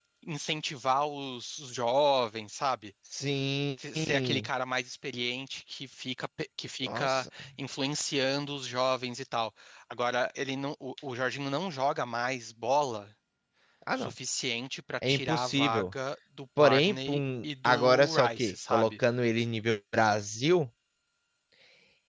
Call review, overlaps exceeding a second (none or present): present